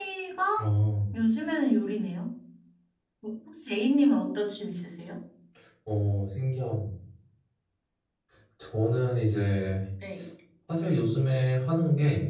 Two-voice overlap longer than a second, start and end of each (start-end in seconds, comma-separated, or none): none